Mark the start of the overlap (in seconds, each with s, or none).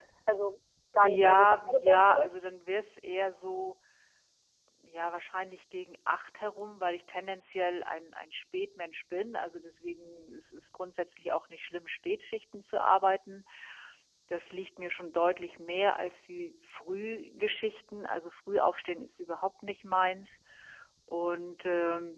1.0 s